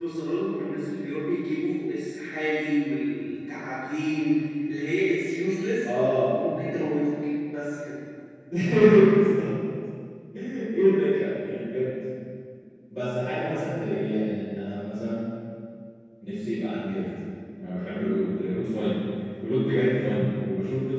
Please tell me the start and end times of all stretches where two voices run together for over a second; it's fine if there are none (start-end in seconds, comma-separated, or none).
none